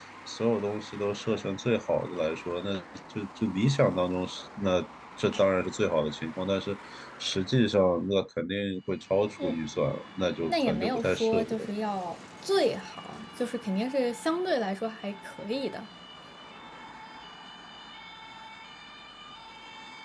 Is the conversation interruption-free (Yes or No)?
No